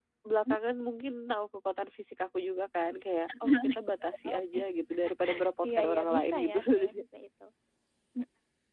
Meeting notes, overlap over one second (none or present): present